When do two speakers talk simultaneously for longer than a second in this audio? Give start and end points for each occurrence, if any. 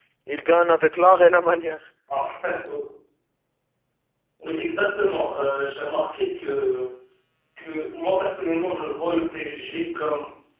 none

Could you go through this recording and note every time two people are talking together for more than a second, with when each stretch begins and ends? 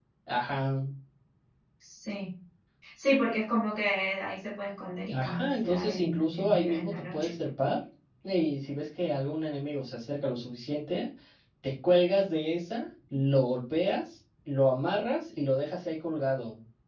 5.1-7.3

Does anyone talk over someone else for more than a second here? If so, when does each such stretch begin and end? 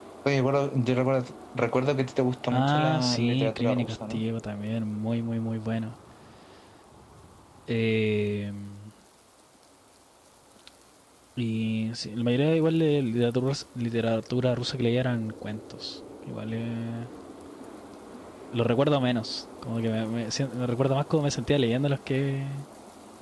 2.5-4.2

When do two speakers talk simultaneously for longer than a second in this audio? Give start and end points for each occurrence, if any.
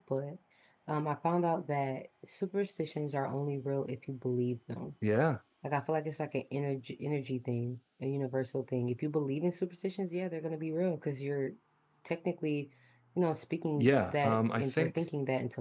13.8-15.0

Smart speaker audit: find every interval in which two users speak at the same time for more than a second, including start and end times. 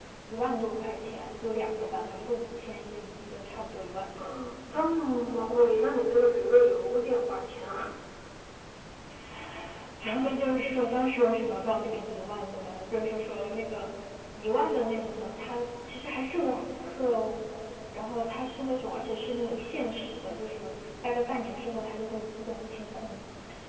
none

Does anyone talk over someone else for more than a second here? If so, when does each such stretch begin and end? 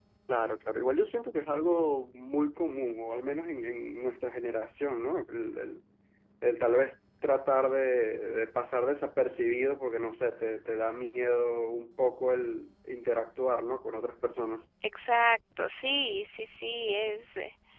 none

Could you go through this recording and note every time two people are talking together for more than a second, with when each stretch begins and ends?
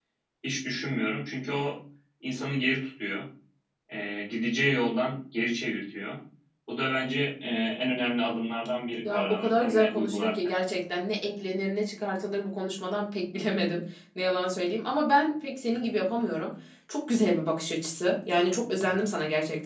9.1-10.3

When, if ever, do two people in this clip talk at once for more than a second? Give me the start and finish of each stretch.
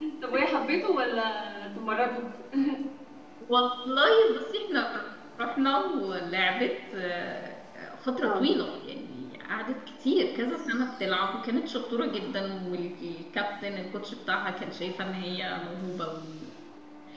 none

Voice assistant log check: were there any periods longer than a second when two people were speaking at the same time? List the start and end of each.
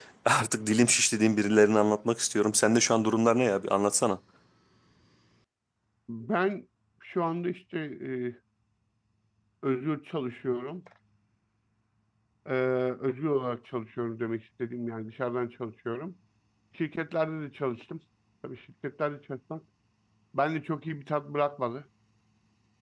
none

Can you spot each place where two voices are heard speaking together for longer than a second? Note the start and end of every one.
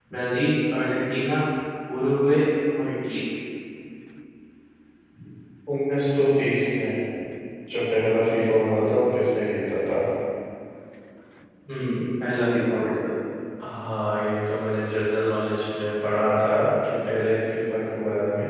none

